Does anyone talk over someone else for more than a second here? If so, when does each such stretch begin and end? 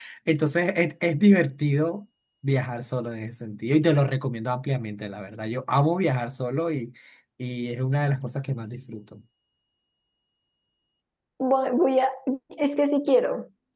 none

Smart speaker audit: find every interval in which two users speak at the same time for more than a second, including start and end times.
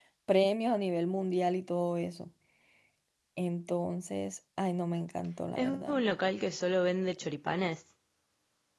none

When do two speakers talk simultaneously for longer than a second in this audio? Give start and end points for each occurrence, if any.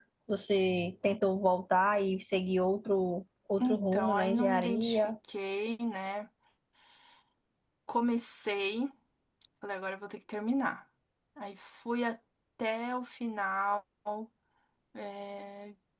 3.6-5.1

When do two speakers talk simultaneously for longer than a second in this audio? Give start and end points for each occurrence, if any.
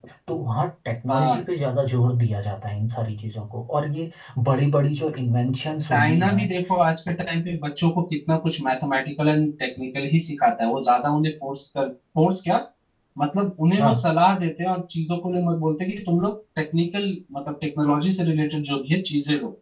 none

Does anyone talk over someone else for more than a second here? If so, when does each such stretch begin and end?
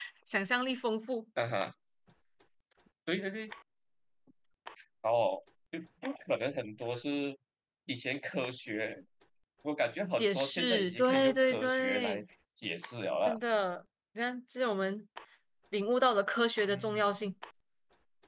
10.2-12.2

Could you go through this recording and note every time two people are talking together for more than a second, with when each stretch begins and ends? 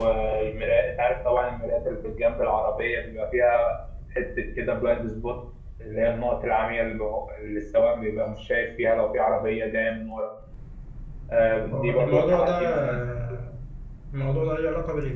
11.7-13.0

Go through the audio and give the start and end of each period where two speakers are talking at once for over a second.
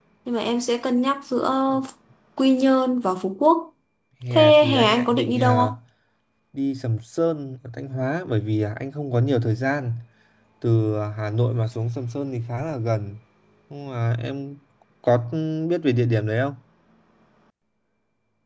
4.3-5.6

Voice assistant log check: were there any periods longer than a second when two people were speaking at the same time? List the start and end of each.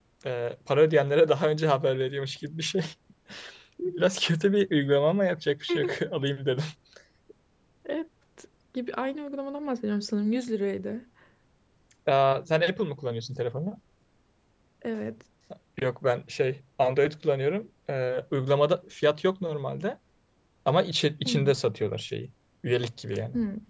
none

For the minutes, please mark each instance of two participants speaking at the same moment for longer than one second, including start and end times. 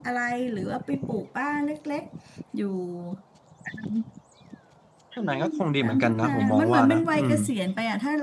5.8-7.3

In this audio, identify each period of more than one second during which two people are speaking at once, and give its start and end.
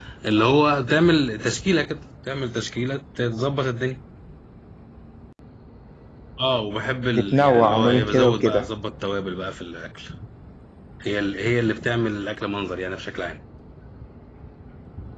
7.2-8.7

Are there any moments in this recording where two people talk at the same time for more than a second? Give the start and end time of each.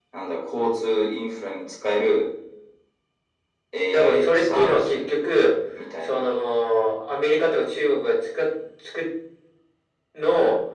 3.9-5.1

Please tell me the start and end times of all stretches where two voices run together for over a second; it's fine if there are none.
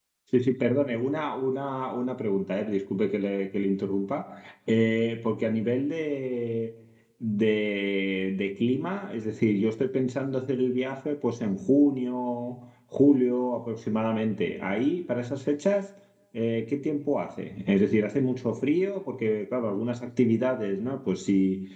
none

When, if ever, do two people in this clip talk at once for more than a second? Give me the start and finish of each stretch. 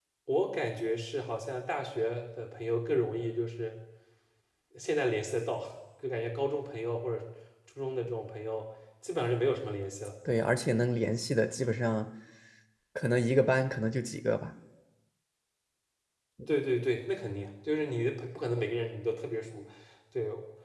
none

